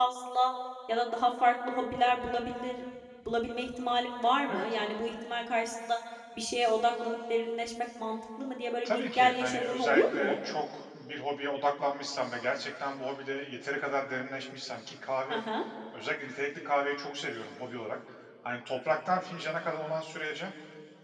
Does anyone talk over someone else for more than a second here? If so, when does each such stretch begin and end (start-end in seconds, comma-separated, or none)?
8.8-10.3